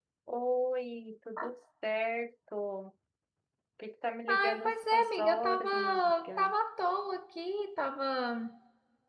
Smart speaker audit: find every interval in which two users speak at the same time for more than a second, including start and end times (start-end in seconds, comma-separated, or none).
4.3-6.5